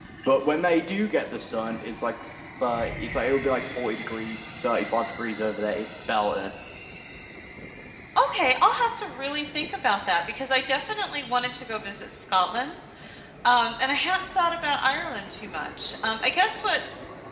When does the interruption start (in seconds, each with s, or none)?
none